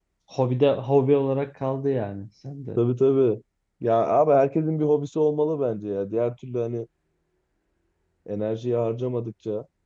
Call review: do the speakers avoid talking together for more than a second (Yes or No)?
Yes